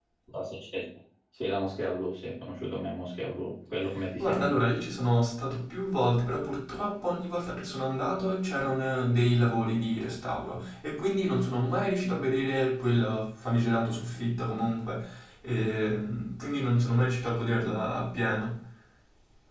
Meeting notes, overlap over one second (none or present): none